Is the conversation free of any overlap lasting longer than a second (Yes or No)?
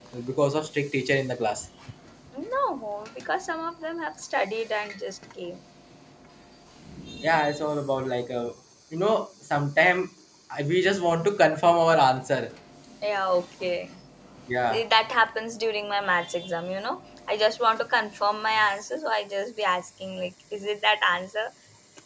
Yes